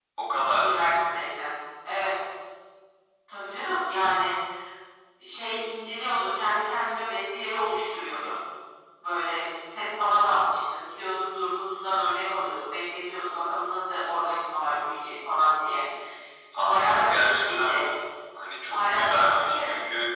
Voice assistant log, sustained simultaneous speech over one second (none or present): present